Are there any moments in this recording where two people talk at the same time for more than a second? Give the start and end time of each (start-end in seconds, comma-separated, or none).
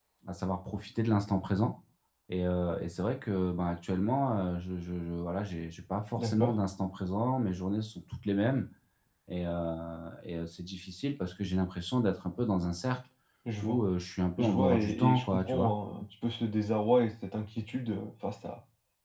14.4-15.7